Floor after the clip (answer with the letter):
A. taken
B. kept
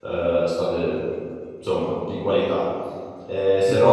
B